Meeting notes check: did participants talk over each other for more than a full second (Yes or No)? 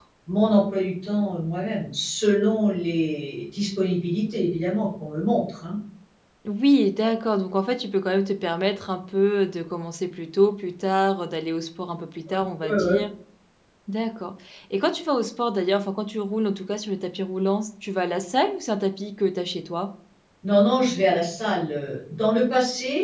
No